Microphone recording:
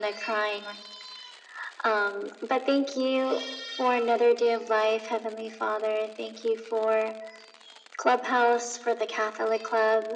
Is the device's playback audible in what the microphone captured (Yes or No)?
Yes